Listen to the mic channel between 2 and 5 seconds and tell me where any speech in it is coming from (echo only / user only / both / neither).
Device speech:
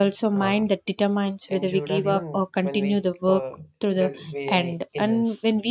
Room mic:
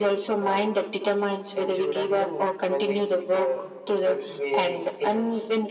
echo only